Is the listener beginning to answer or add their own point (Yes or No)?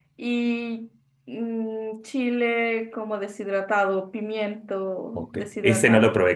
Yes